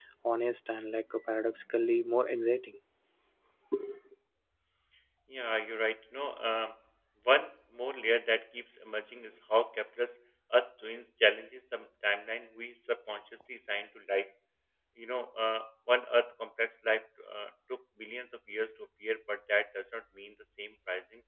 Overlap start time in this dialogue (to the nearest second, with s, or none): none